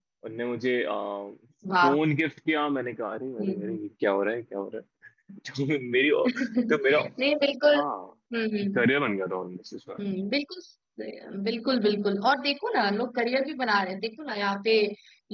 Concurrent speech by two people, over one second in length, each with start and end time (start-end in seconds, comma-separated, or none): none